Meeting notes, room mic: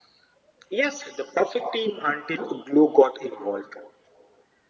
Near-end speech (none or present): none